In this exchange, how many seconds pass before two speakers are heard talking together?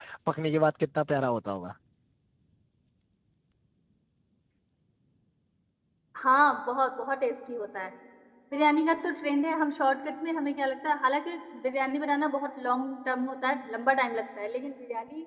none

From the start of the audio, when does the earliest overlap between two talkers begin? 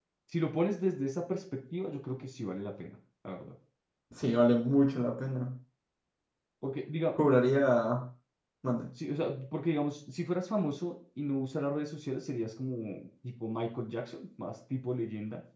none

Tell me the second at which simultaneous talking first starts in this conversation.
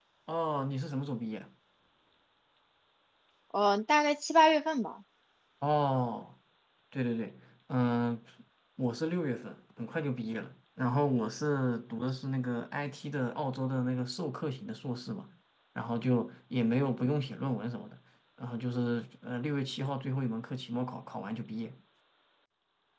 none

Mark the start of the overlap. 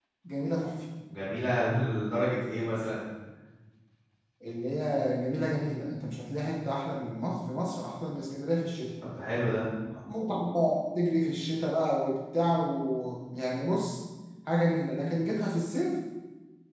none

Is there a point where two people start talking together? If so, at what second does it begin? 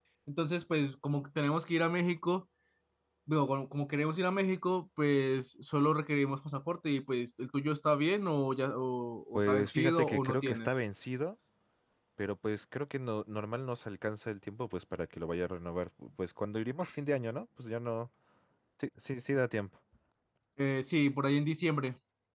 9 s

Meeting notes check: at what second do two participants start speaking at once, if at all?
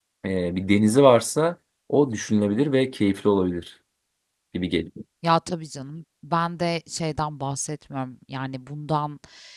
none

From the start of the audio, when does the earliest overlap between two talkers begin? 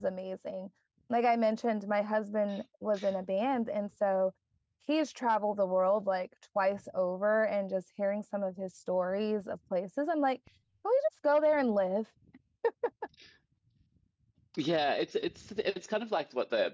none

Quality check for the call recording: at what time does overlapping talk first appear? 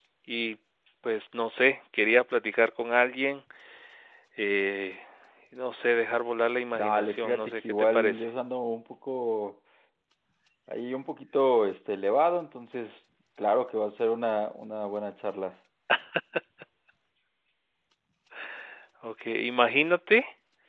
7 s

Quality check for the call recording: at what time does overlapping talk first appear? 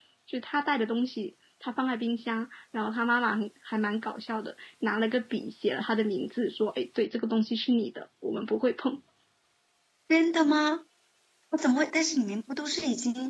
none

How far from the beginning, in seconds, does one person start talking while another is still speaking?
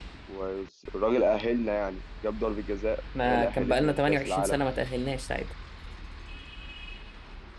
3 s

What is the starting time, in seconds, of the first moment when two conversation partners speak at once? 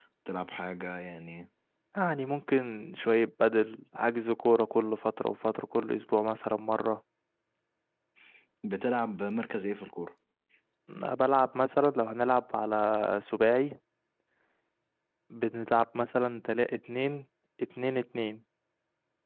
none

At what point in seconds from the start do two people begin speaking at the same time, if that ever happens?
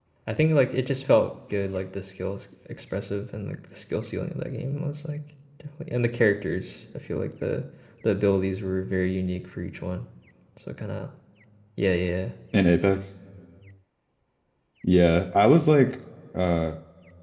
none

